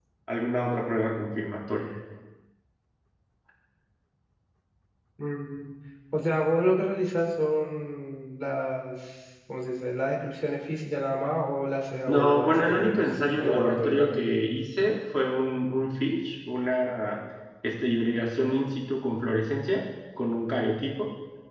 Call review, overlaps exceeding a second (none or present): present